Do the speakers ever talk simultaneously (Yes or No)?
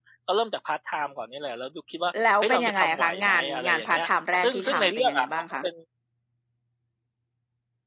Yes